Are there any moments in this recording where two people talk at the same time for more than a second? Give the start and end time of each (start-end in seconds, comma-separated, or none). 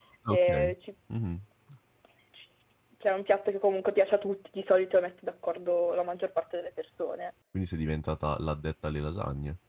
none